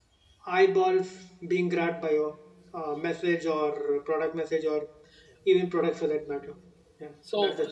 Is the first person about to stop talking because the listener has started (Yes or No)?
Yes